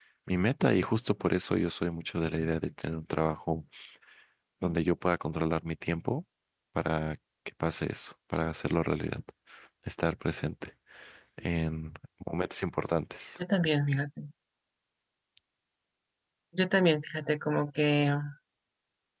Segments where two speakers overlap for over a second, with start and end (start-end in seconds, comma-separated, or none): none